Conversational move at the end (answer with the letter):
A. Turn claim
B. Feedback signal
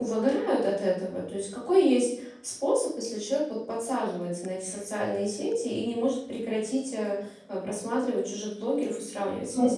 A